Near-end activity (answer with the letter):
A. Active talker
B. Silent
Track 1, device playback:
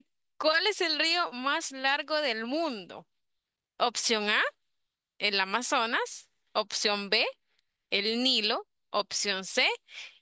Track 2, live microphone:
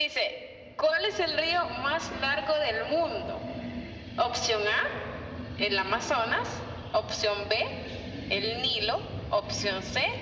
B